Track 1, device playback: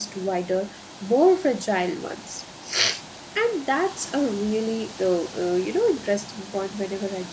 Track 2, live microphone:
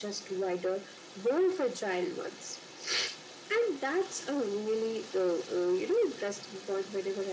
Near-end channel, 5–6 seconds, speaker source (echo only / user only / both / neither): echo only